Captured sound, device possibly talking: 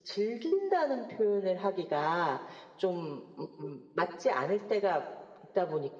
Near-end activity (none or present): none